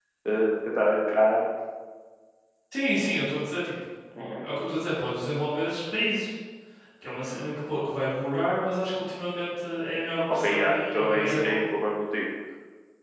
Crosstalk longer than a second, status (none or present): present